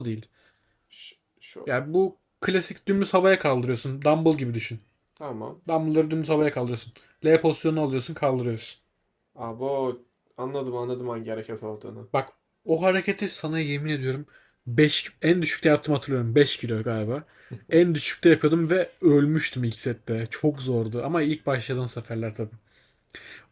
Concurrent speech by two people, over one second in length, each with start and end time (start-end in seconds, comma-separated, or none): none